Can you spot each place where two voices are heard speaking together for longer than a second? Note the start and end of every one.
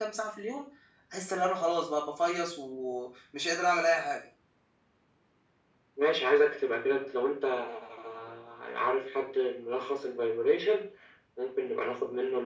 none

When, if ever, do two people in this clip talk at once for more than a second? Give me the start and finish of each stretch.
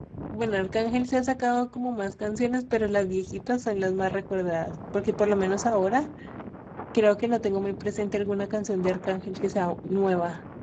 none

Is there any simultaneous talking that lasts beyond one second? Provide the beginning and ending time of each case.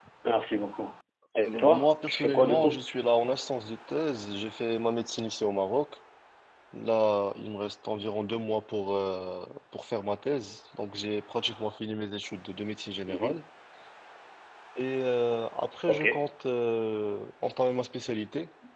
1.4-2.8

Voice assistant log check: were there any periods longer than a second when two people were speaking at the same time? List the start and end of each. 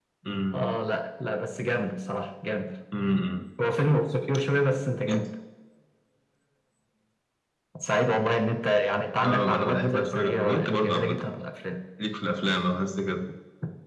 9.2-11.2

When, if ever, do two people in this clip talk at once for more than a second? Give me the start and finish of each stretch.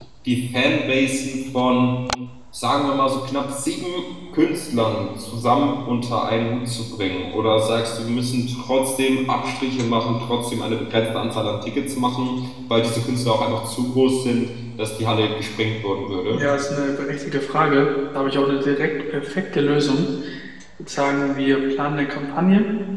none

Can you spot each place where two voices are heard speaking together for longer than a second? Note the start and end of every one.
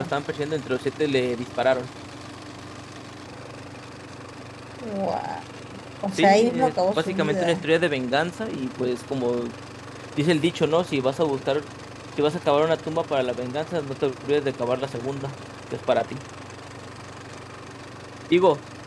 6.1-7.7

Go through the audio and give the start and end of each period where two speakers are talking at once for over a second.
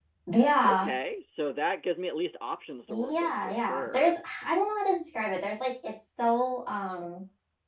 2.9-4.2

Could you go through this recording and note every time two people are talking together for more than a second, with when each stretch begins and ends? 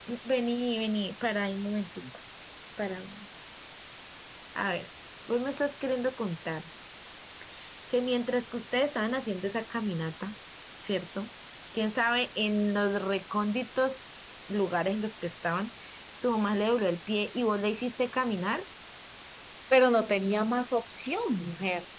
none

